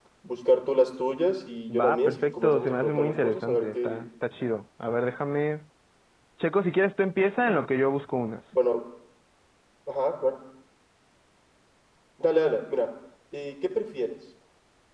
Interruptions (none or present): present